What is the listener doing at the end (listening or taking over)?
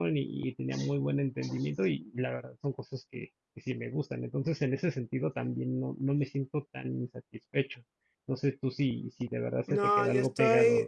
taking over